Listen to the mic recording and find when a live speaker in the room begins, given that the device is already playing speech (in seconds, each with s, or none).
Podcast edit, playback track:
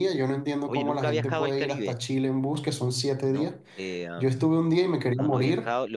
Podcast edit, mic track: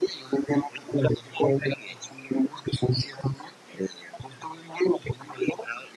none